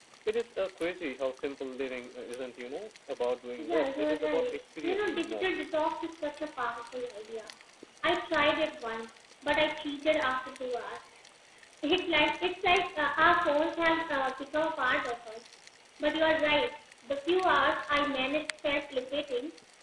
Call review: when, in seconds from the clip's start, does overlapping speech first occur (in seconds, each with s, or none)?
3.6 s